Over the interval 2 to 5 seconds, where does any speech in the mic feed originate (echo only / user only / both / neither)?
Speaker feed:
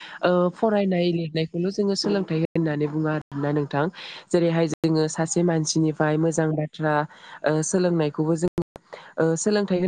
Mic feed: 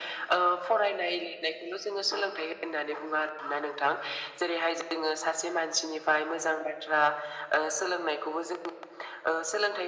echo only